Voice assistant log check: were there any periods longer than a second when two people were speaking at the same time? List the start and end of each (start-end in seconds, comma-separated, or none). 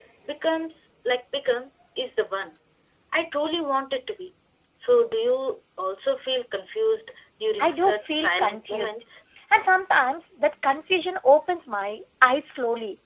7.6-9.0